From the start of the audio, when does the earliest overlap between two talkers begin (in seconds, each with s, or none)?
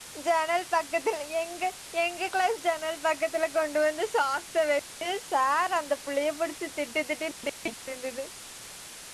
none